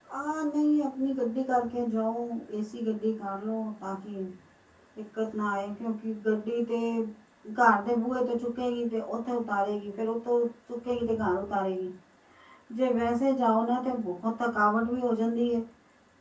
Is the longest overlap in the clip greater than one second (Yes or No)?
No